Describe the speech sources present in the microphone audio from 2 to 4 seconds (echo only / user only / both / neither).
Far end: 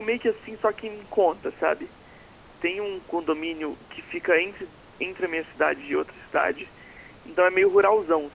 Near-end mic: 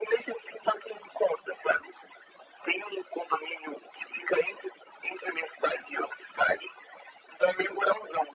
echo only